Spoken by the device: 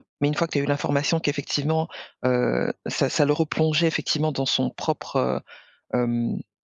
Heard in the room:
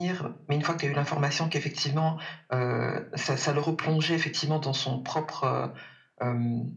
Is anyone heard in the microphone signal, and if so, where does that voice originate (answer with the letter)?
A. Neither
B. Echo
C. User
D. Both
B